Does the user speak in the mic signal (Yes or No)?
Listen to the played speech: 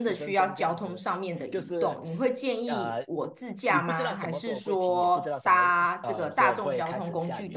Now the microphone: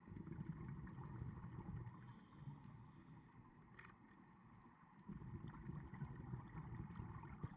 No